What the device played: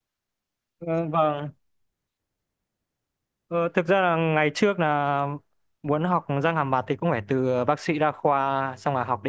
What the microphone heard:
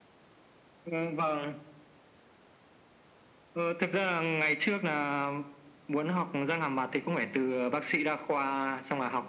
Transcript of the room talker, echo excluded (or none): none